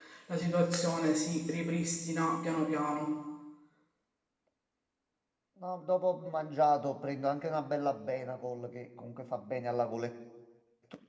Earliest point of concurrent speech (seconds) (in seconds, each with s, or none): none